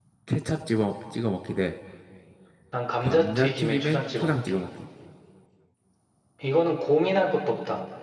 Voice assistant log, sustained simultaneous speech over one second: present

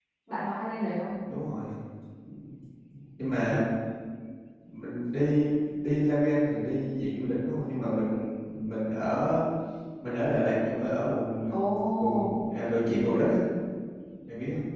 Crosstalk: present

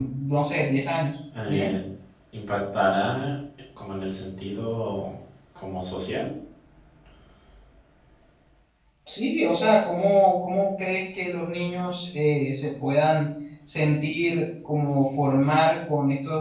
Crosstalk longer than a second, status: none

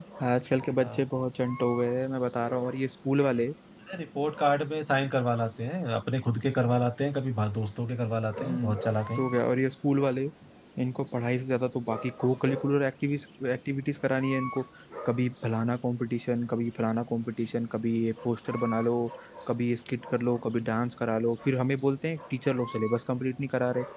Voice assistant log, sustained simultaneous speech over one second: none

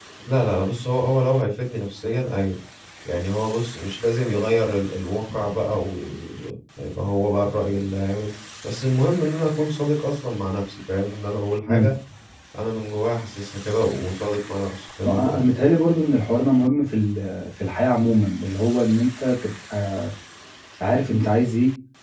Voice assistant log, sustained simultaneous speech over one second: none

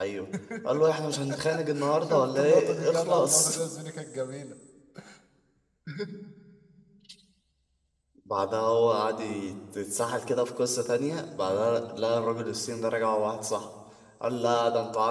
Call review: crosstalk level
present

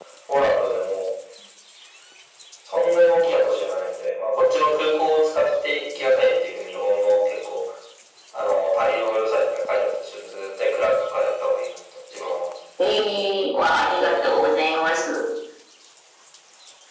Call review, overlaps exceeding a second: none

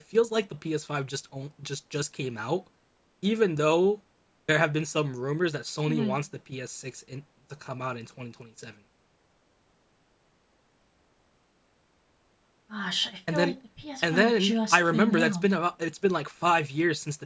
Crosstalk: present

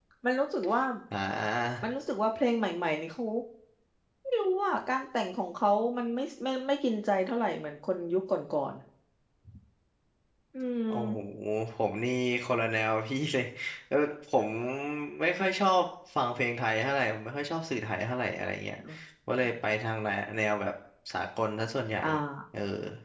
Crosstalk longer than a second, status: none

